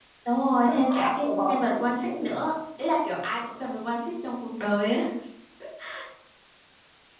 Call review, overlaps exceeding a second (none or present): present